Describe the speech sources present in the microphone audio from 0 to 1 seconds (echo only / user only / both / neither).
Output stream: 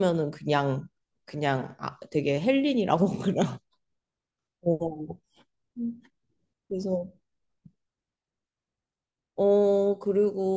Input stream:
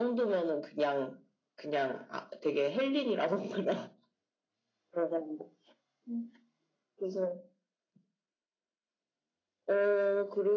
echo only